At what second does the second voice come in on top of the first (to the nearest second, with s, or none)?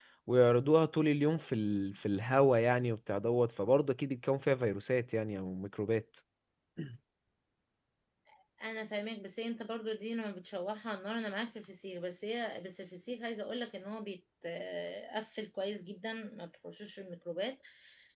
none